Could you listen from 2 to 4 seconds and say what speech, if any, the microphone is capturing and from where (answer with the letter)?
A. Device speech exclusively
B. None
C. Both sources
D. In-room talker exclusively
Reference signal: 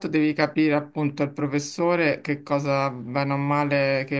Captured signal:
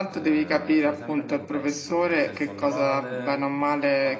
C